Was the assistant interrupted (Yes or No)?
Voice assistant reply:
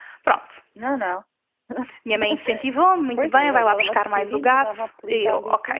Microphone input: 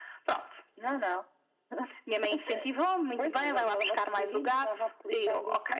No